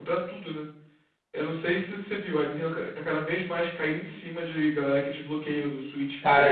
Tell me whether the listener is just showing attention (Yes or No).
No